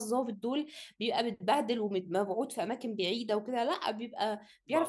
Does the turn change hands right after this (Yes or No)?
Yes